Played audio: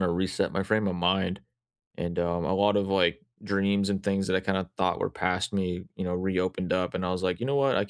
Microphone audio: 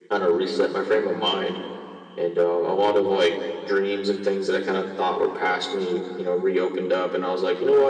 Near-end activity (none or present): none